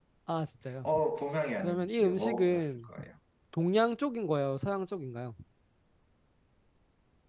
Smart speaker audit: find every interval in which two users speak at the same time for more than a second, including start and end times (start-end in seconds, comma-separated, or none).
1.6-2.9